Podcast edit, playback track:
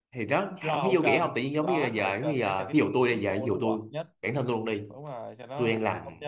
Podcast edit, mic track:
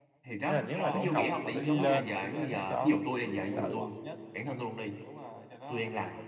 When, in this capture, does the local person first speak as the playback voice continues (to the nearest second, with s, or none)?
0 s